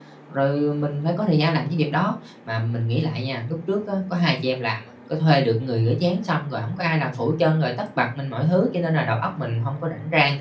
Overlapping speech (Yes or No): No